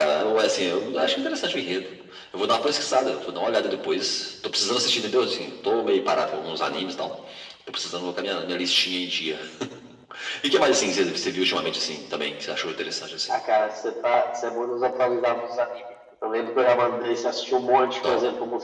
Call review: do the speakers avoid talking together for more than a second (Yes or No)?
Yes